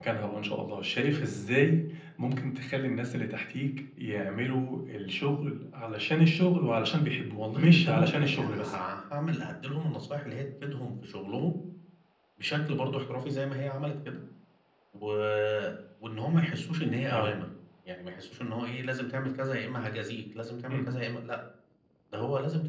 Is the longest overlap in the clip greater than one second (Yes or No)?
Yes